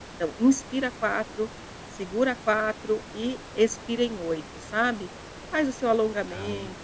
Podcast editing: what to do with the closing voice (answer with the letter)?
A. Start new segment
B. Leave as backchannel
B